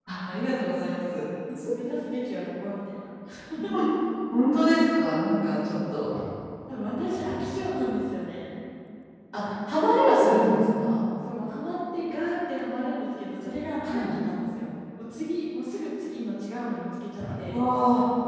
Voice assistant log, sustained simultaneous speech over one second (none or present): none